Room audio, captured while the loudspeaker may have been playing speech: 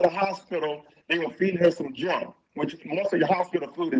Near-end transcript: none

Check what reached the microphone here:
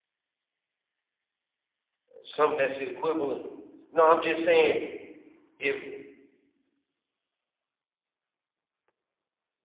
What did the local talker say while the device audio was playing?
something that's the equivalent. No, I'm just saying if

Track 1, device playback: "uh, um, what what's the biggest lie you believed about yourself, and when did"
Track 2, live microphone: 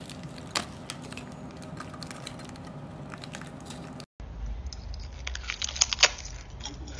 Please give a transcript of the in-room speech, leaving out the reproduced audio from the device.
none

